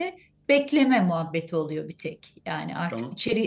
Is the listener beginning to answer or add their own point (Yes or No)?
No